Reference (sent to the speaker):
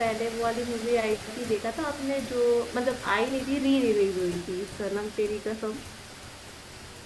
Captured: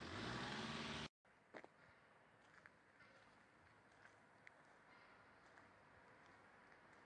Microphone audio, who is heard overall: neither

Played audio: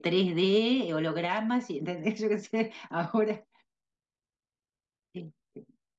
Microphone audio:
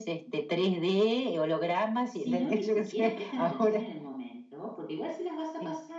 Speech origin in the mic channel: both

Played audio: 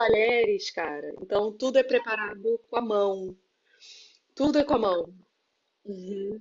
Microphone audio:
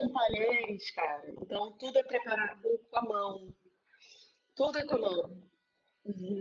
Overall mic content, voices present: echo only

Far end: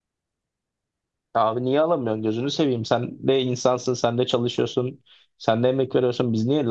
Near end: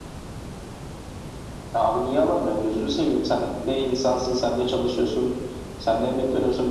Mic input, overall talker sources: echo only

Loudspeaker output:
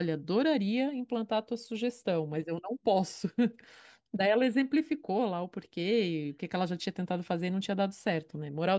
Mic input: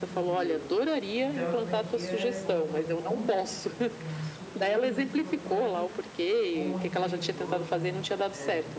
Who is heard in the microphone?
both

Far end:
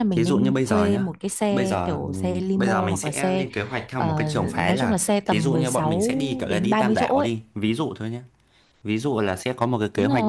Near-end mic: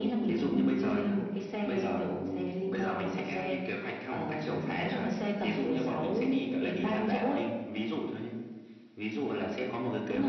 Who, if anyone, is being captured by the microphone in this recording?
echo only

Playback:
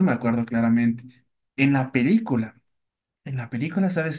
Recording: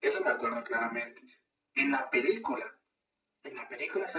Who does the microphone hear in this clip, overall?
echo only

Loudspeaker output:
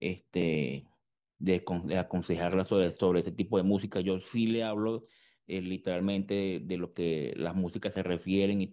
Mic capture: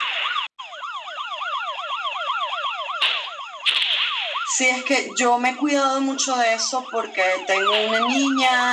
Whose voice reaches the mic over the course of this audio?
user only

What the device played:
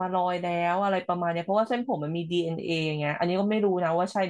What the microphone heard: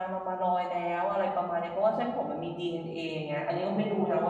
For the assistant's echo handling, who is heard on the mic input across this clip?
echo only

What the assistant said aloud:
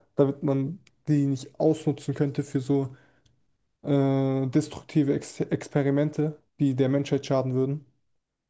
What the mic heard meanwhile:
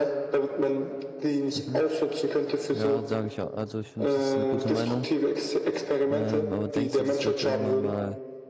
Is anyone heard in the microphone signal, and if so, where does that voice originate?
both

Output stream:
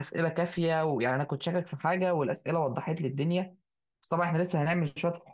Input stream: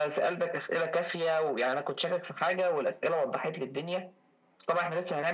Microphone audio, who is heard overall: echo only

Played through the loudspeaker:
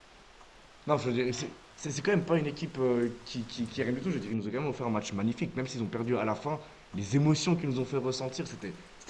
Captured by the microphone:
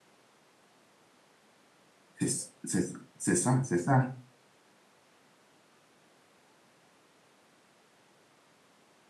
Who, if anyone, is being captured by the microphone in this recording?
user only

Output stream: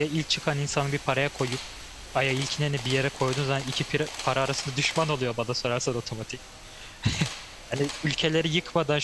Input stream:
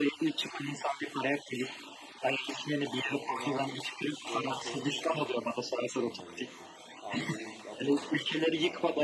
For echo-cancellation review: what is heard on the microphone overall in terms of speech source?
both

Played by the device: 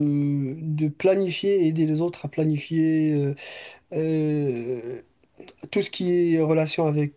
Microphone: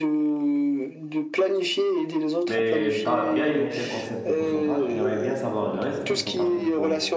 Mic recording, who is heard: both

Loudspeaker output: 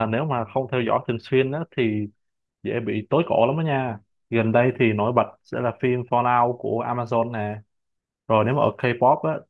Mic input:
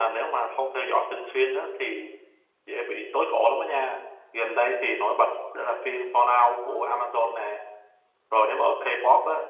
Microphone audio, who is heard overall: echo only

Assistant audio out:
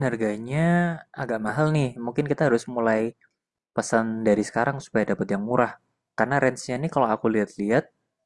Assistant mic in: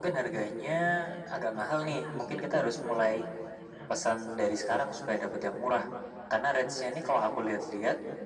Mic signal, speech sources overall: both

